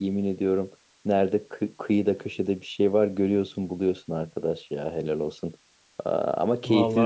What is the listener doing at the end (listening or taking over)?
listening